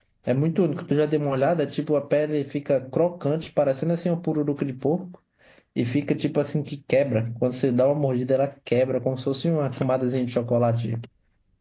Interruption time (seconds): none

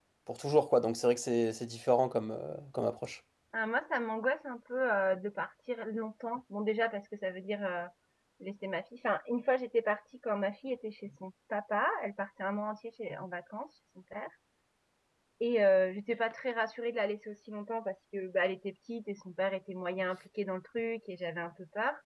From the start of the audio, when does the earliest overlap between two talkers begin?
none

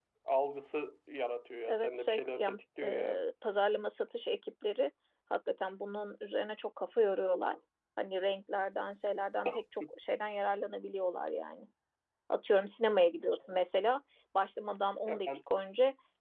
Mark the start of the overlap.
1.7 s

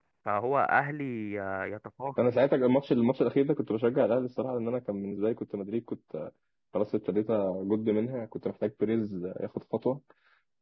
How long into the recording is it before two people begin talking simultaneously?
none

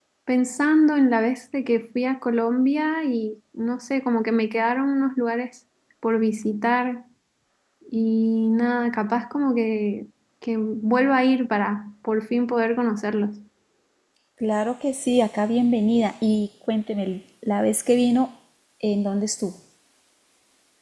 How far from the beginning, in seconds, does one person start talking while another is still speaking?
none

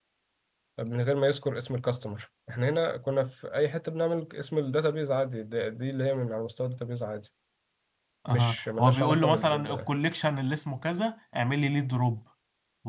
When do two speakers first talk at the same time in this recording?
8.3 s

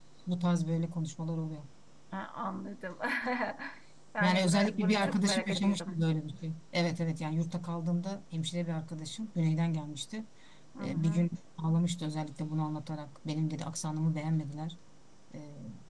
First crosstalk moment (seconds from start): 4.2 s

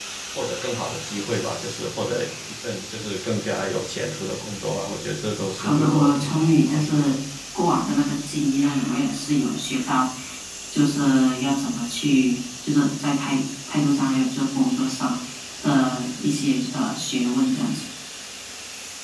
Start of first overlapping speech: 5.6 s

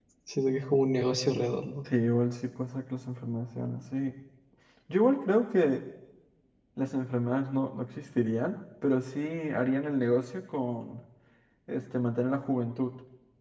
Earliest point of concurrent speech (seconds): none

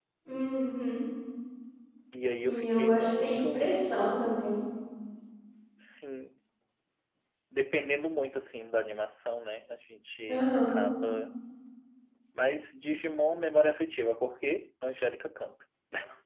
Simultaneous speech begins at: 2.4 s

